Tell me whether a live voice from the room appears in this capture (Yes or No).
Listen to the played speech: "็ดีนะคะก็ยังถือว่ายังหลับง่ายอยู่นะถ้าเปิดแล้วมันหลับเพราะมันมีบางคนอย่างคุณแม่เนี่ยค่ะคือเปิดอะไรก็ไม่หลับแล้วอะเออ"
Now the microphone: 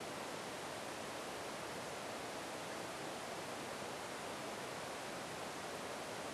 No